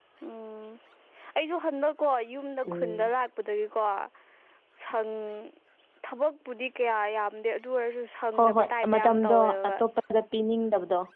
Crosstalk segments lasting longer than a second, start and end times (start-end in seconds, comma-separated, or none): 8.4-9.7